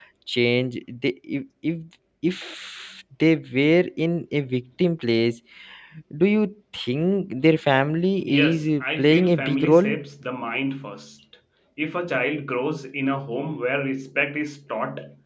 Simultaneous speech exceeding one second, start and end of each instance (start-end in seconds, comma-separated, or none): 8.5-9.9